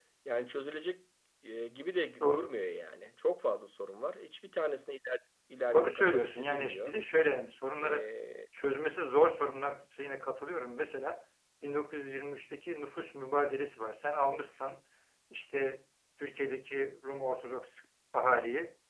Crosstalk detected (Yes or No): Yes